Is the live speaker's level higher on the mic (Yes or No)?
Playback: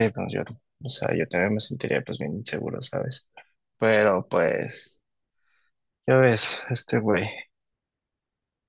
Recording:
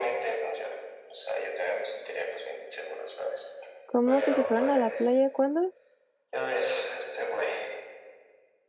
Yes